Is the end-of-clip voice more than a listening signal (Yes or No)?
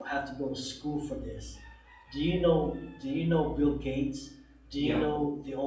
No